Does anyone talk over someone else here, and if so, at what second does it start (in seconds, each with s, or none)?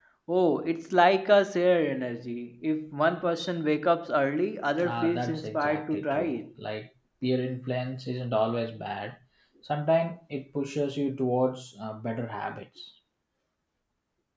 4.8 s